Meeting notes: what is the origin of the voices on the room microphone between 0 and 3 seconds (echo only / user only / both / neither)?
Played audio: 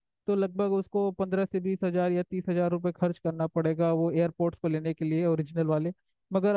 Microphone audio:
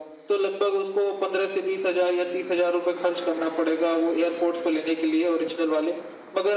echo only